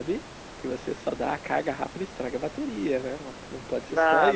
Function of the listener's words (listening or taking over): taking over